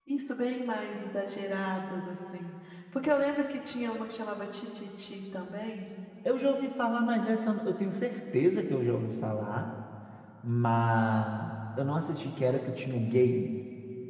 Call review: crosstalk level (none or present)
none